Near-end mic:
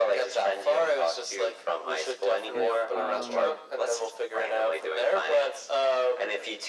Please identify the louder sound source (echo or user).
echo